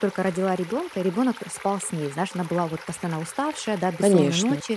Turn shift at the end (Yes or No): No